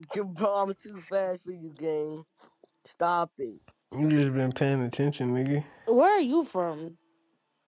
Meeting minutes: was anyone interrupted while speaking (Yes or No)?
No